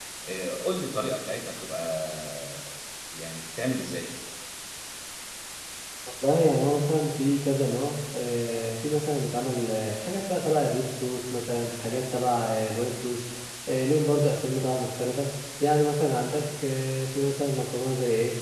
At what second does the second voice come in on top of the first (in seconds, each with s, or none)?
none